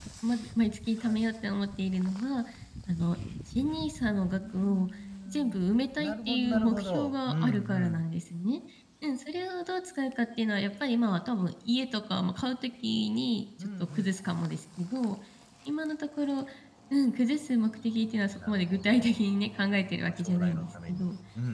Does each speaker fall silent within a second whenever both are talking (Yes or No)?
No